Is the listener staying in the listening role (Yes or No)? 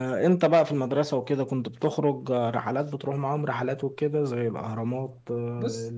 Yes